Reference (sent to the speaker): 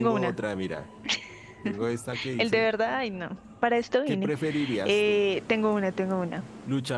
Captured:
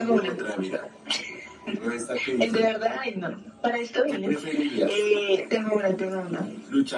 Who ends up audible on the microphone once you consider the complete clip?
echo only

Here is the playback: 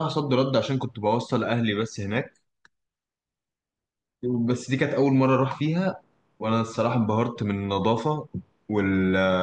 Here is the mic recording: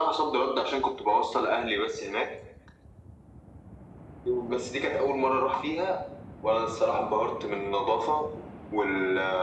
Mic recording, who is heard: echo only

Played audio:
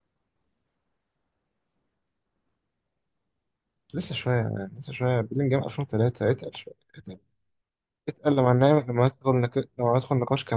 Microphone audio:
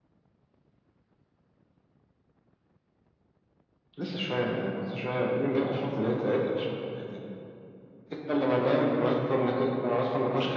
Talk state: echo only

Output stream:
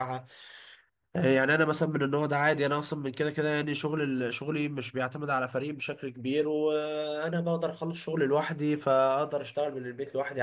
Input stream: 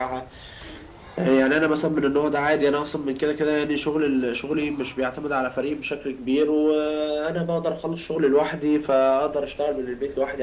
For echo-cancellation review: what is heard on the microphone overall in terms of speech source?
echo only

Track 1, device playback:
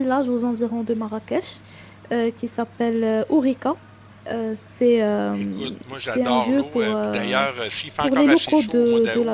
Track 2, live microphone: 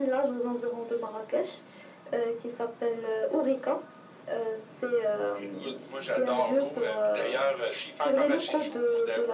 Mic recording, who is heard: echo only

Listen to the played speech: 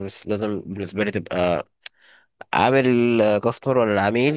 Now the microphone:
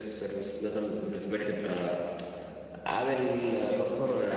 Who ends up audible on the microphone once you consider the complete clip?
both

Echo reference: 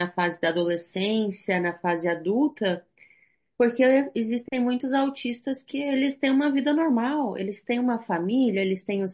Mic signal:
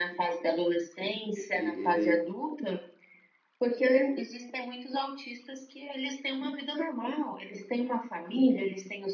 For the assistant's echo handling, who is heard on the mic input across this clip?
both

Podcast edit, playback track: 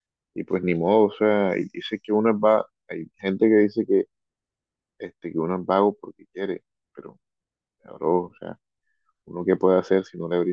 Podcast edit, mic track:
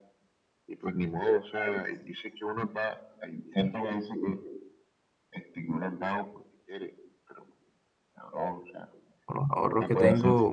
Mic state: both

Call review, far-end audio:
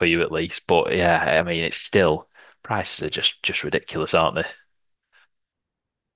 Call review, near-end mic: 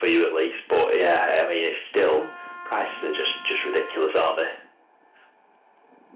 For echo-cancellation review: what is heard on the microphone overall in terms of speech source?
both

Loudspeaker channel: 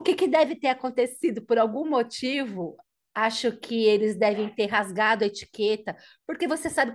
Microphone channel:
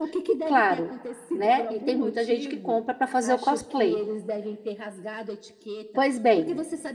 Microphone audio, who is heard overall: both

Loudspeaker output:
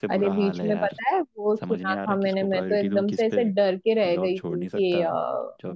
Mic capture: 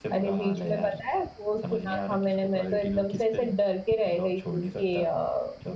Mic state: echo only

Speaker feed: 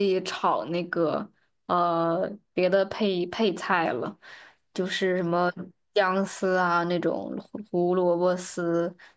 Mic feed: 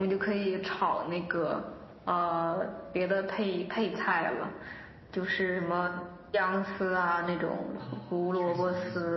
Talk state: both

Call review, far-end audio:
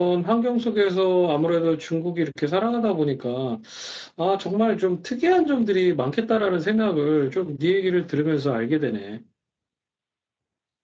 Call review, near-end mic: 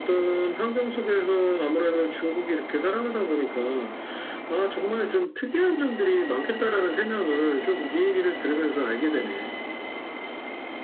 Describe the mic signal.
echo only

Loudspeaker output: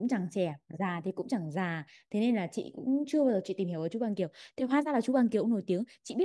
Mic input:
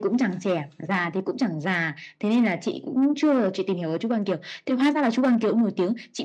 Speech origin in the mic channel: echo only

